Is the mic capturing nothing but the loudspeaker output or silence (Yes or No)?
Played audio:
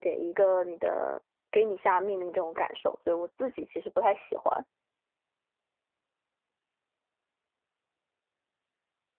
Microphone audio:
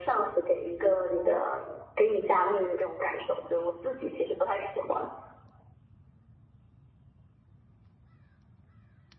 Yes